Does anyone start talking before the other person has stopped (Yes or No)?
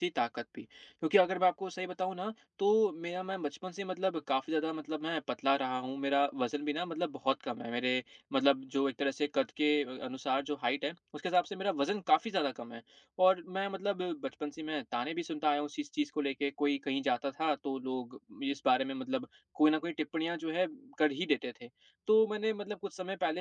No